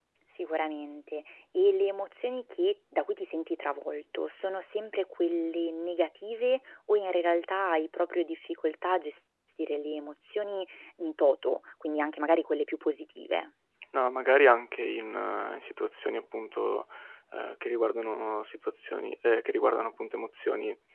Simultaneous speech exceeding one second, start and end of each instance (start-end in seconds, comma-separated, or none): none